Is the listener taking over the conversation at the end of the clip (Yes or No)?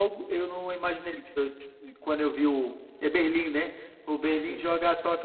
No